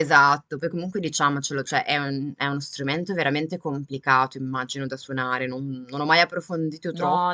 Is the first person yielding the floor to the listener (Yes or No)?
Yes